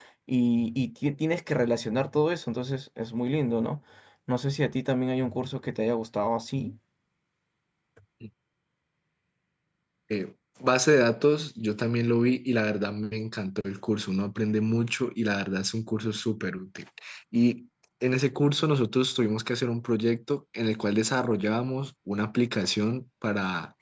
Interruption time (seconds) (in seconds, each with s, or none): none